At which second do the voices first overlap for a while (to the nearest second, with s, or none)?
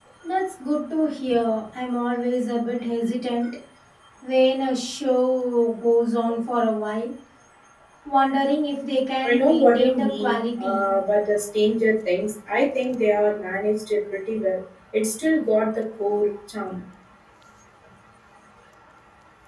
9 s